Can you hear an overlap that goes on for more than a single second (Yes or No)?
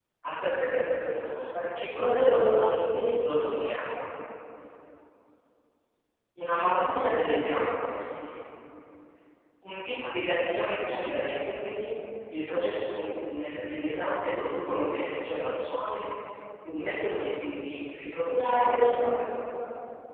Yes